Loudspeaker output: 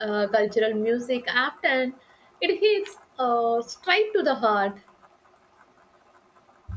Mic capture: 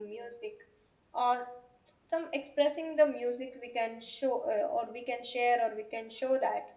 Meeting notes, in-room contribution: present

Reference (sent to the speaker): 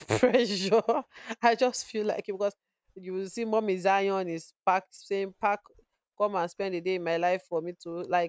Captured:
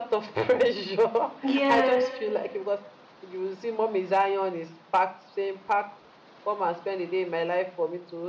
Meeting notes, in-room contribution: present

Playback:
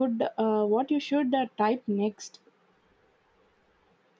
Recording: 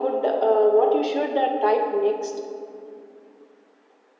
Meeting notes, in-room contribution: none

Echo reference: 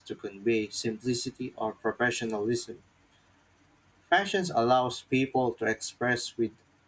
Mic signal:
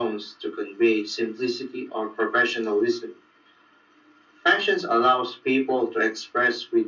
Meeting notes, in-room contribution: none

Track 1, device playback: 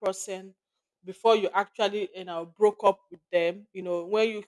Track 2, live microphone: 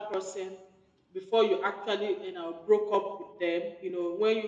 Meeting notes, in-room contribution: none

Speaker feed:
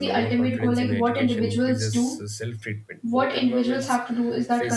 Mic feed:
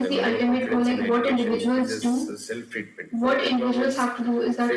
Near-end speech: none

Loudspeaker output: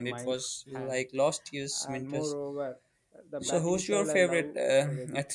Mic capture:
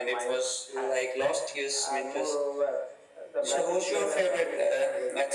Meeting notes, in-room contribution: none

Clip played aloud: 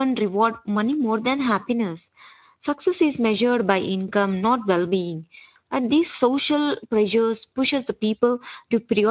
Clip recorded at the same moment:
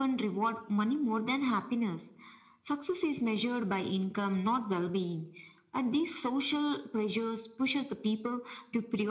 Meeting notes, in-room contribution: none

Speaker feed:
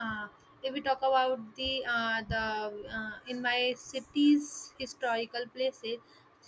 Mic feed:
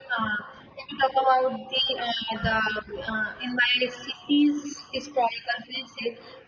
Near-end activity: none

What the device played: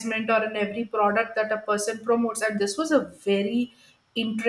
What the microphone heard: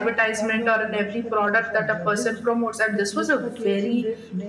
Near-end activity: present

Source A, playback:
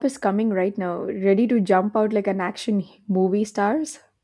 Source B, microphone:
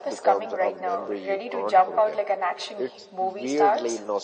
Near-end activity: present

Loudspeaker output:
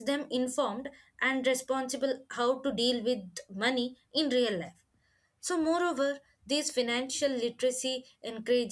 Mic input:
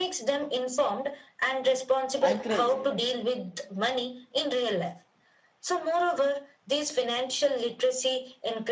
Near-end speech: present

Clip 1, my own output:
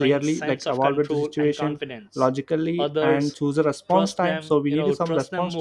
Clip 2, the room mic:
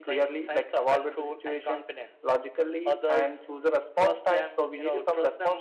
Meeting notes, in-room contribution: none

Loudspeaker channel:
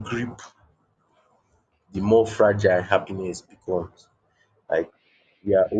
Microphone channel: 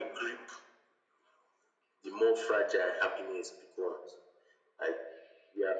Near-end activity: none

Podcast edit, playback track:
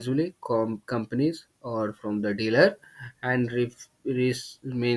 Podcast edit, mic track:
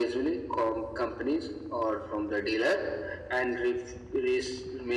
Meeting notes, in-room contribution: none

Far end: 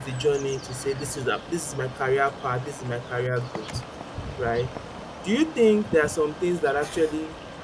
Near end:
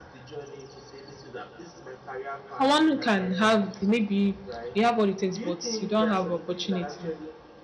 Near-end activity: present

